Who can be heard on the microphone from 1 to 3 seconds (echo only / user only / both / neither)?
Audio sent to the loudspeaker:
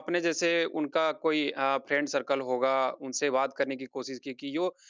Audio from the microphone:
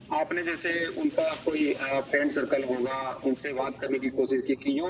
echo only